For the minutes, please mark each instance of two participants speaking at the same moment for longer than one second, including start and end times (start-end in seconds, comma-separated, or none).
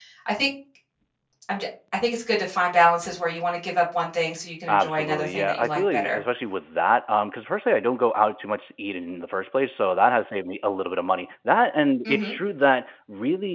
4.7-6.2